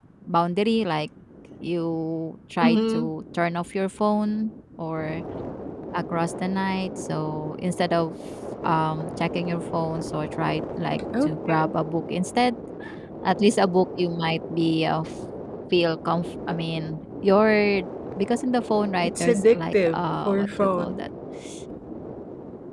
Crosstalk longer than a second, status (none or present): present